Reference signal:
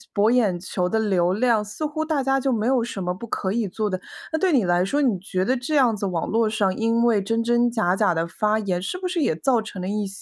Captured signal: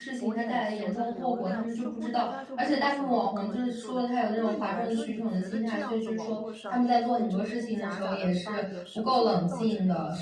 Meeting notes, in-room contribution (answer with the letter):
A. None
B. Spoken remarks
B